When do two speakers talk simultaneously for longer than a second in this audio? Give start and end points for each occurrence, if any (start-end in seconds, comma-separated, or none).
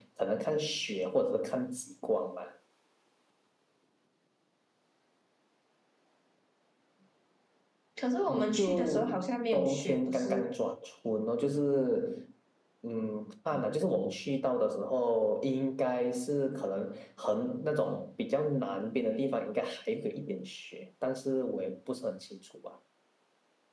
8.3-10.5